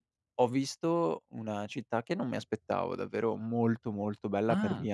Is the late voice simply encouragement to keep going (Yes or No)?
Yes